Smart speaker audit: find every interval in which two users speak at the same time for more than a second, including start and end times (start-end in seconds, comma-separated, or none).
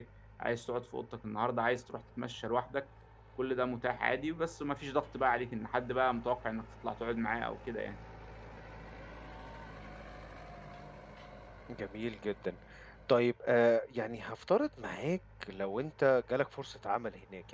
none